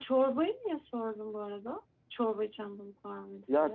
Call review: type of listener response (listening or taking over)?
taking over